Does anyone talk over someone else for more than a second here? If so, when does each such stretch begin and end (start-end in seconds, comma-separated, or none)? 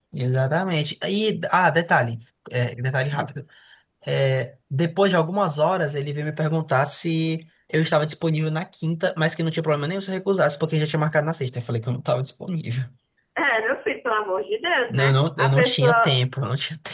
14.9-16.2